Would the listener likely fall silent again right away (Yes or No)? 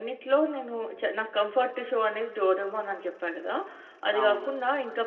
Yes